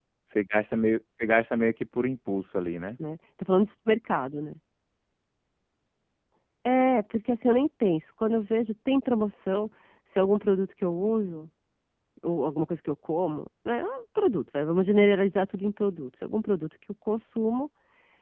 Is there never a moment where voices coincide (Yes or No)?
Yes